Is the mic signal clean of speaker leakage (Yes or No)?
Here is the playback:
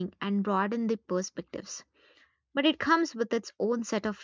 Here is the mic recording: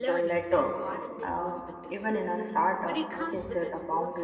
No